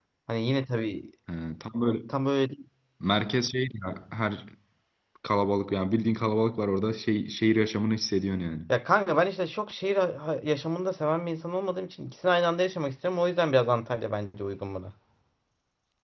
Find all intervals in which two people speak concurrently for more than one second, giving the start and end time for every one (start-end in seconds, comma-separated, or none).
none